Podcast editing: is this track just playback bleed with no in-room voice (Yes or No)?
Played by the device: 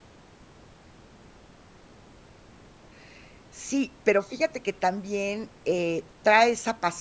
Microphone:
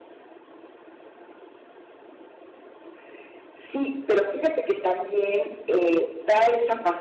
Yes